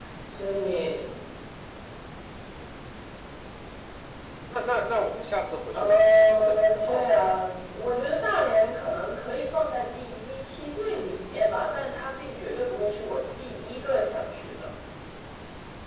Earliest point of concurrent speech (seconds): 5.7 s

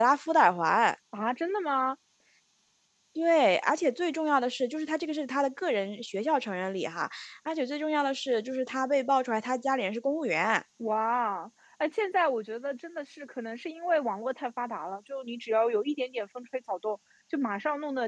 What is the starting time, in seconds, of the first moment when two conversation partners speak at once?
none

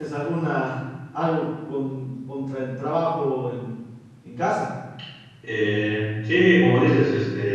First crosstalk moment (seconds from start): none

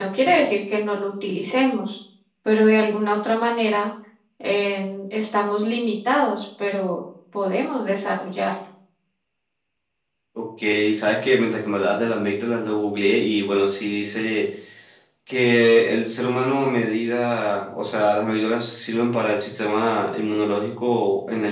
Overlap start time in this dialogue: none

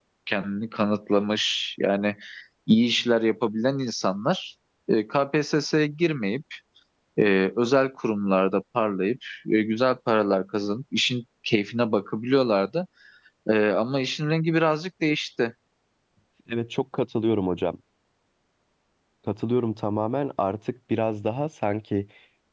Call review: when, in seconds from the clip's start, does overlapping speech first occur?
none

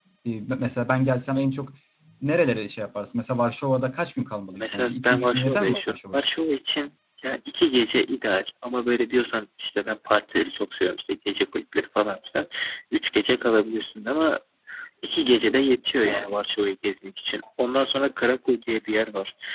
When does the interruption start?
4.5 s

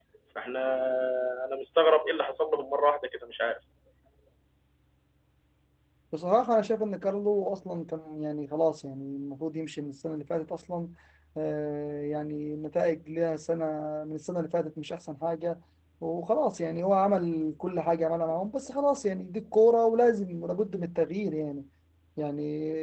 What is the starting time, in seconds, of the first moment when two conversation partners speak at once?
none

